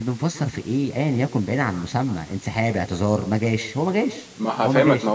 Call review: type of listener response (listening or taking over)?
taking over